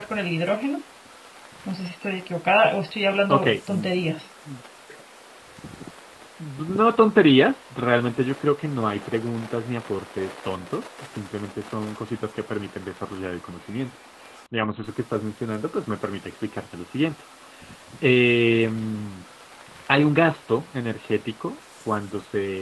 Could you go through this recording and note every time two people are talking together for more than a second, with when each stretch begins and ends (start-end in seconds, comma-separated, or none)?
none